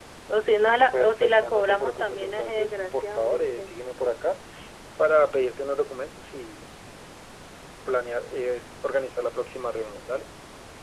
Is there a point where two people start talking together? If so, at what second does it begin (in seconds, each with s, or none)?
0.9 s